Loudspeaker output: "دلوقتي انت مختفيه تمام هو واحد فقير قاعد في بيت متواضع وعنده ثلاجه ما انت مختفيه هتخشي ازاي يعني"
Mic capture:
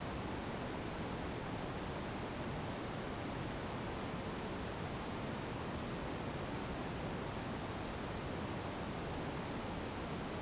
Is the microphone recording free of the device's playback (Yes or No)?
Yes